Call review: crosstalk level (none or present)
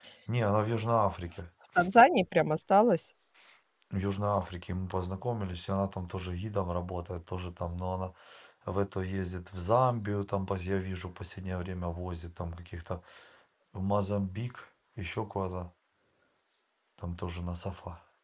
none